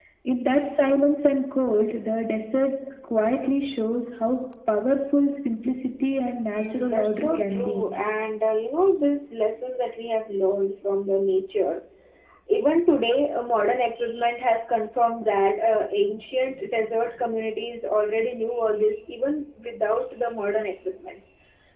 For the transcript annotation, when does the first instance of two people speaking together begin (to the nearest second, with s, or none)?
7 s